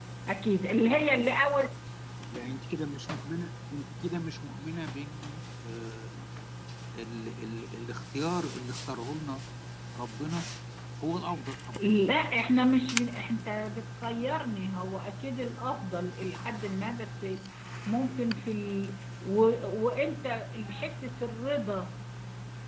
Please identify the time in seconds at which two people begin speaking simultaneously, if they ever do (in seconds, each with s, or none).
none